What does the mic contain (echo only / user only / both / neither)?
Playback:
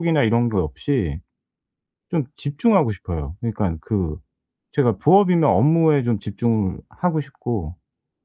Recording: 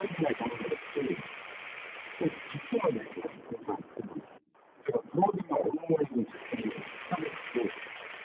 echo only